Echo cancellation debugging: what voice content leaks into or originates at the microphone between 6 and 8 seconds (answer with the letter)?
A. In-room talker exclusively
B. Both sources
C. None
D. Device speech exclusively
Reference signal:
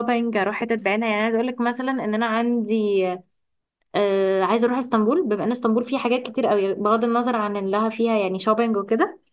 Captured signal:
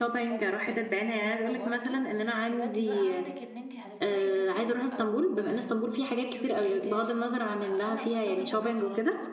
B